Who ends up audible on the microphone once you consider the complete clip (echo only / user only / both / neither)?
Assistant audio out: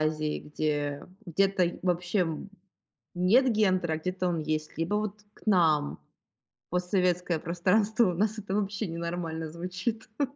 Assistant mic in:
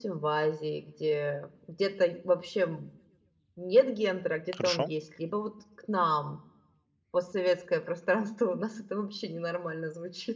both